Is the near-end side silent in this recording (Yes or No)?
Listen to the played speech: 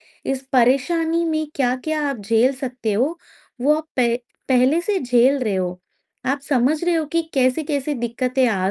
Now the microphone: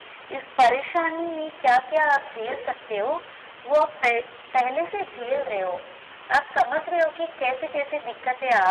Yes